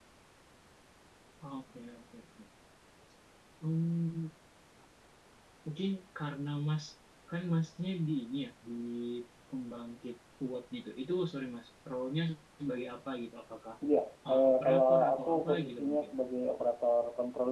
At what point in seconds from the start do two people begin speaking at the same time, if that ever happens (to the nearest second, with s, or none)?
14 s